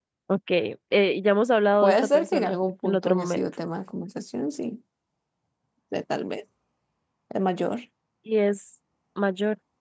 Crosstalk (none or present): present